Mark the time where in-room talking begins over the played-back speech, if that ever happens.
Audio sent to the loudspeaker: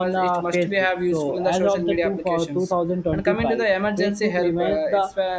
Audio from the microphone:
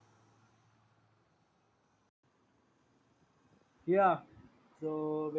3.9 s

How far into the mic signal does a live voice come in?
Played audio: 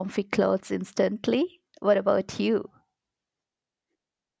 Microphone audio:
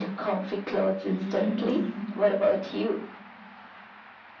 1.0 s

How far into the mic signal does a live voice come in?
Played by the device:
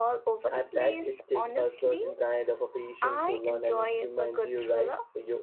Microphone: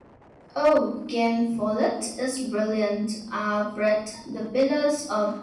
0.5 s

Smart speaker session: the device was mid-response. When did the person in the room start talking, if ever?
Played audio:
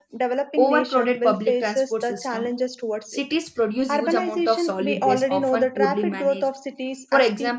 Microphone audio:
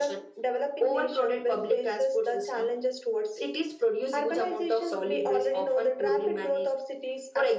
none

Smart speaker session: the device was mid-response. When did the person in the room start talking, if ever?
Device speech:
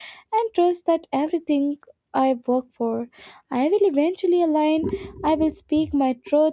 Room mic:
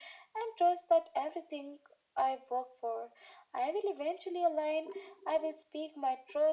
none

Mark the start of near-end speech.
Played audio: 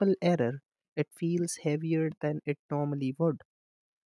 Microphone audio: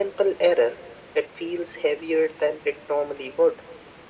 none

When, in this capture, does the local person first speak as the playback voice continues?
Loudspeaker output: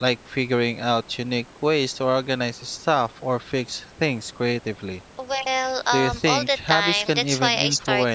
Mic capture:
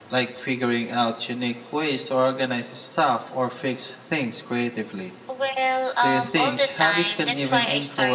none

